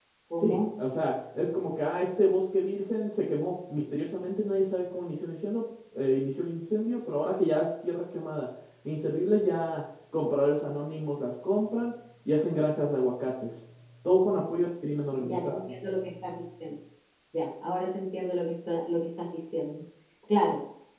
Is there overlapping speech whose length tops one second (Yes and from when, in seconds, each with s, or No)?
No